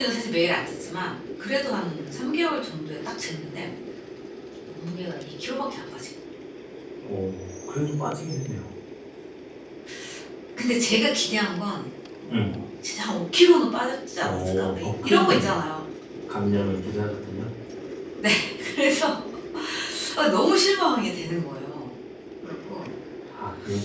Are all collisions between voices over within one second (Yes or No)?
No